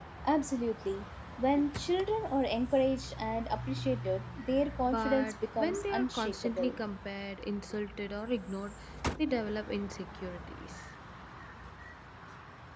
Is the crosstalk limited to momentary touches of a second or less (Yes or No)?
No